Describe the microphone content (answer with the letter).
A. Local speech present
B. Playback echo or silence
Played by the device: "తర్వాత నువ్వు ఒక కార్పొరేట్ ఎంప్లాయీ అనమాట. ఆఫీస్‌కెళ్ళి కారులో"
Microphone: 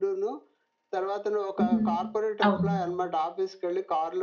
A